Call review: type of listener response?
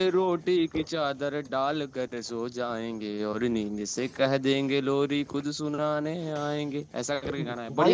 taking over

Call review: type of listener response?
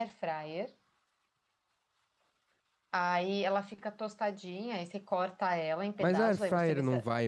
taking over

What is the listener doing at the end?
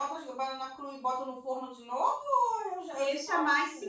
taking over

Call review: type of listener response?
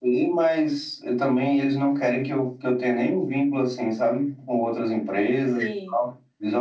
listening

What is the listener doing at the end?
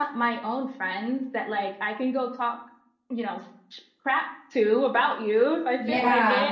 listening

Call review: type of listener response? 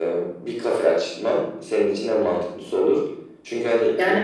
listening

